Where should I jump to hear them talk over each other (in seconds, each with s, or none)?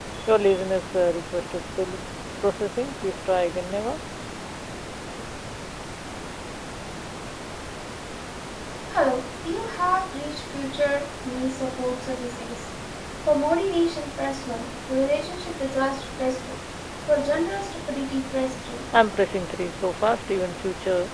none